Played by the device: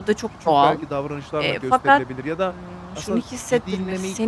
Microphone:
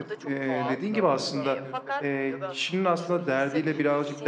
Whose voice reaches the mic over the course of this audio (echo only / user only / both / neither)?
both